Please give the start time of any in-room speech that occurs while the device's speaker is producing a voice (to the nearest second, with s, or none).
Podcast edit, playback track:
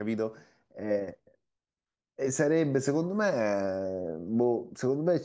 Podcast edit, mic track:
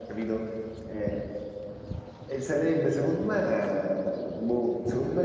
none